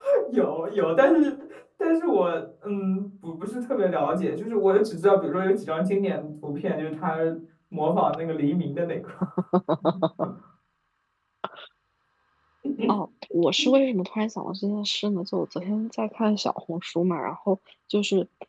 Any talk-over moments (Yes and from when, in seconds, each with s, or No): No